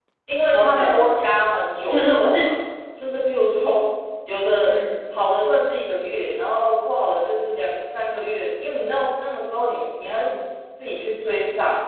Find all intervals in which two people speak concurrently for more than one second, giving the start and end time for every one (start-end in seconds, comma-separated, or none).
none